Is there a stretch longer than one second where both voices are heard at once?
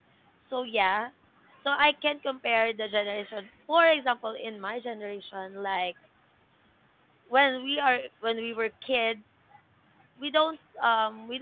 No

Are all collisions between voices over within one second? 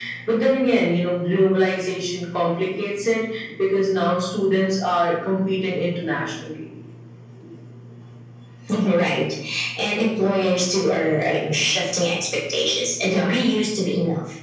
Yes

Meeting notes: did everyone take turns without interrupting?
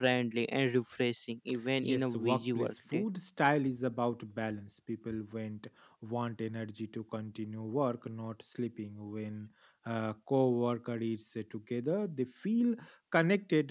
No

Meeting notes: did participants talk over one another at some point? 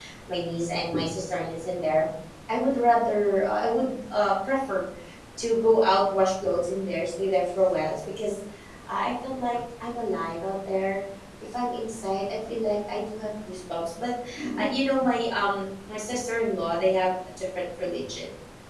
No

